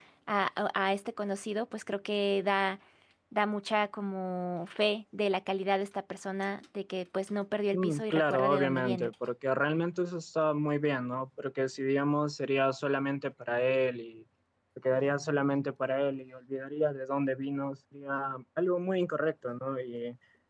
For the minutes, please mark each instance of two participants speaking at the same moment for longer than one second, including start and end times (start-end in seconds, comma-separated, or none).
7.7-9.1